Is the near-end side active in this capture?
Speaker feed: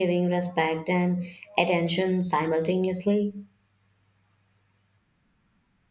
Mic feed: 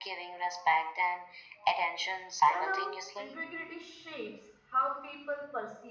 Yes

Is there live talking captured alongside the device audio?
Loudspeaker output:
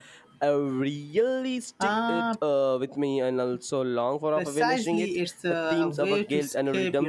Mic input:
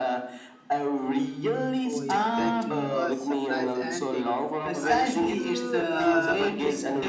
Yes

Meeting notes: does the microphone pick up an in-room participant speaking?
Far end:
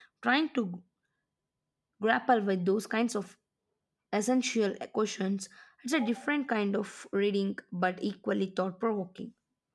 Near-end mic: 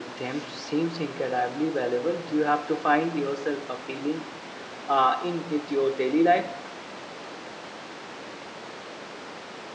Yes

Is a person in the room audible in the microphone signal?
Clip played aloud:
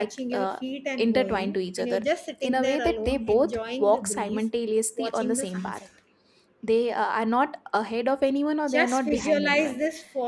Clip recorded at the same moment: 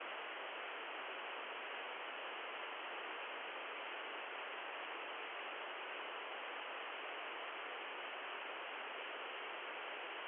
No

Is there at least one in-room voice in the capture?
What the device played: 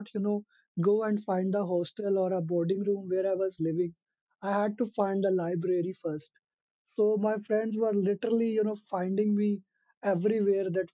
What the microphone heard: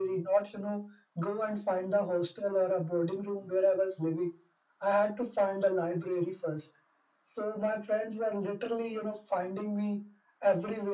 No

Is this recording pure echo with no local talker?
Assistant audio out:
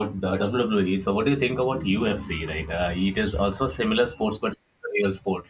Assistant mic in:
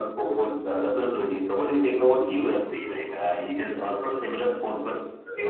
Yes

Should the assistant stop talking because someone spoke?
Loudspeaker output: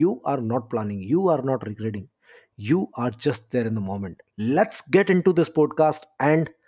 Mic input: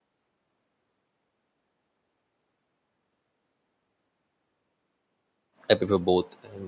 Yes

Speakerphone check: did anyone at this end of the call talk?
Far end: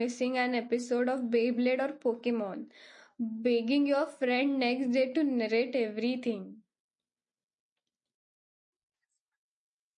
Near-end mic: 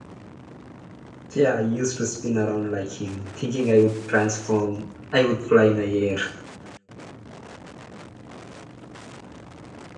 Yes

